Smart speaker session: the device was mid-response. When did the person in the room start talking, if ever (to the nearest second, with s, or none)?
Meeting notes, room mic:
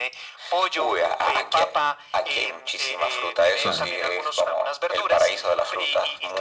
4 s